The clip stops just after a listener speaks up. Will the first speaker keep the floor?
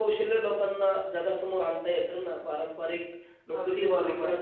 Yes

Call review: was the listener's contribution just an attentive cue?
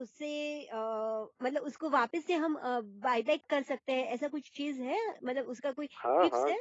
No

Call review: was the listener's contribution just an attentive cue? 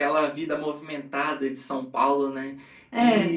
Yes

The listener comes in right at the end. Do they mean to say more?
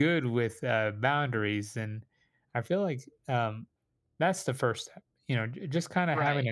No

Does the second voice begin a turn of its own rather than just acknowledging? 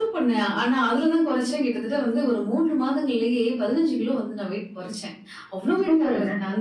No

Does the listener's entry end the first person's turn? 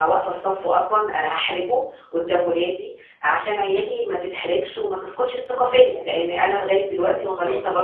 No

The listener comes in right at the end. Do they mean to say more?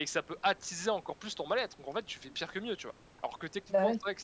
No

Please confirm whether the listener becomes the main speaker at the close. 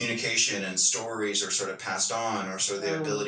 No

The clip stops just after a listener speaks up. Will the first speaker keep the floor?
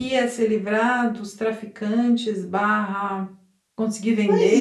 No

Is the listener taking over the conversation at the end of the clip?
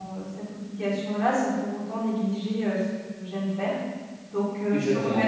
No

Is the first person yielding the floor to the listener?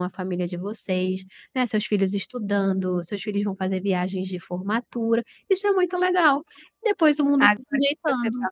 Yes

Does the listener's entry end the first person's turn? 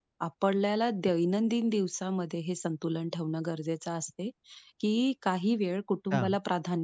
No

